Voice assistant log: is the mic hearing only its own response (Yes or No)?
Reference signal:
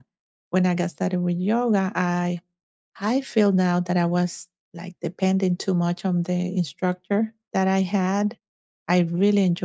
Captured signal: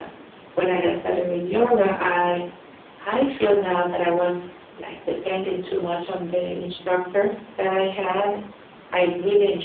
Yes